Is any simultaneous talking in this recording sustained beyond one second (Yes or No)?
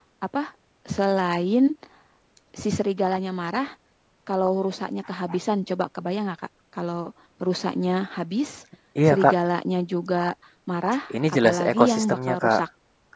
Yes